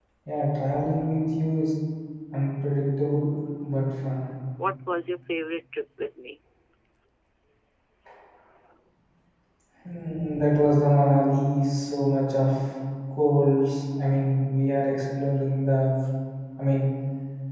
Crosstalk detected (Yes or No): No